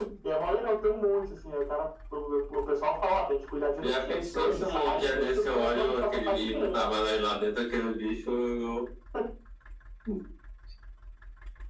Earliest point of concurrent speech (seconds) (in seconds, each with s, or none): 3.8 s